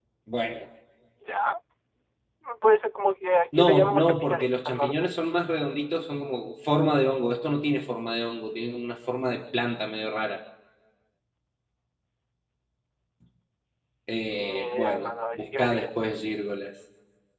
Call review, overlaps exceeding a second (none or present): present